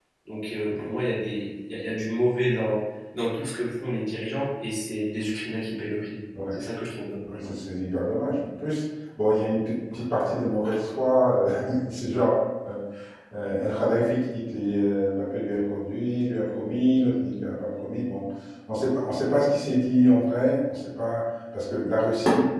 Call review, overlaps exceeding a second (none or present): none